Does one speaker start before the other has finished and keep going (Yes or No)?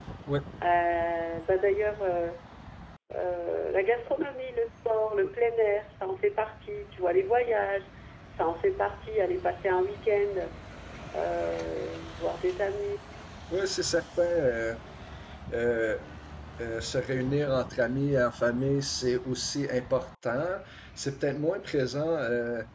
No